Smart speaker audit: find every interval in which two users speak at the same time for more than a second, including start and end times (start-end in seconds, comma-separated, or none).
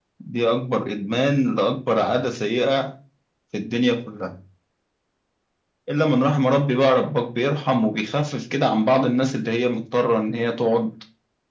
none